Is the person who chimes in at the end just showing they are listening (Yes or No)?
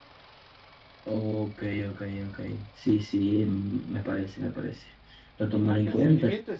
No